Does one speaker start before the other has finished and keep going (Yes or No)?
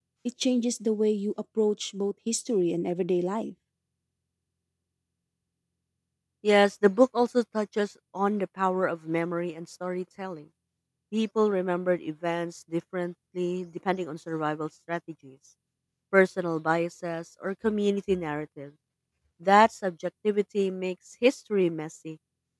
No